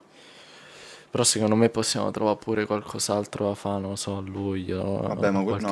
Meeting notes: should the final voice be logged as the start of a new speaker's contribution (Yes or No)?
Yes